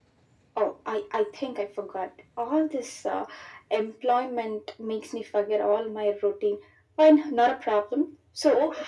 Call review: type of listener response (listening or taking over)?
taking over